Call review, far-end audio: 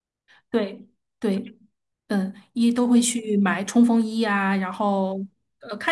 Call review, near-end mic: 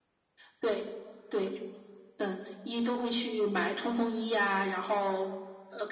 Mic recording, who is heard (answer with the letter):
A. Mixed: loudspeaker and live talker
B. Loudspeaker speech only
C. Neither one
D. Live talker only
B